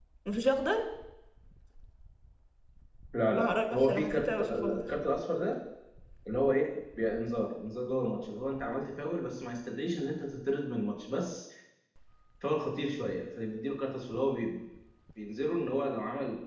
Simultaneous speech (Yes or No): Yes